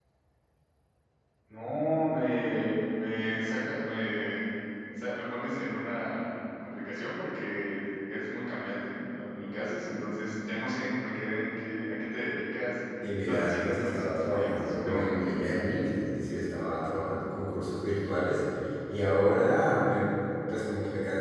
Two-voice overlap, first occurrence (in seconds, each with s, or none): 13.0 s